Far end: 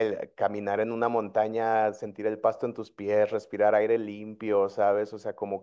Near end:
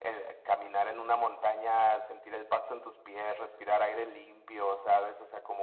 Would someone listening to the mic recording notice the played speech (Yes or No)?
Yes